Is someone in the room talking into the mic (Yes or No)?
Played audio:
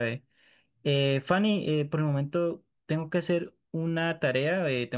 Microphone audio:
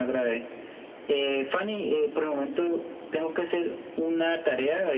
No